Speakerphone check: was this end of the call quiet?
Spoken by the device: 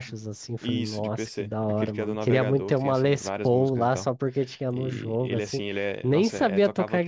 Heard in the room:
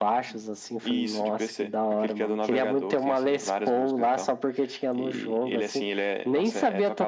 Yes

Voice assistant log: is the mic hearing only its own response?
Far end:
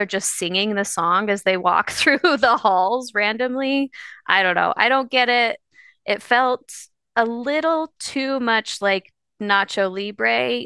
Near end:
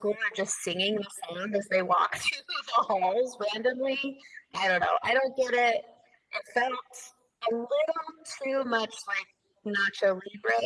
Yes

